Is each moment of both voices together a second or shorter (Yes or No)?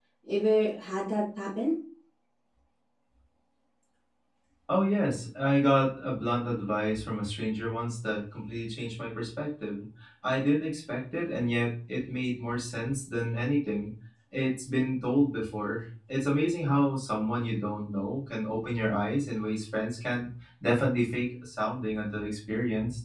Yes